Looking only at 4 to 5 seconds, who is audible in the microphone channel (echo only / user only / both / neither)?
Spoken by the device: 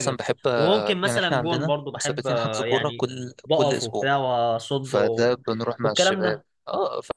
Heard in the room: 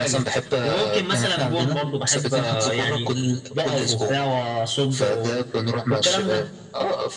echo only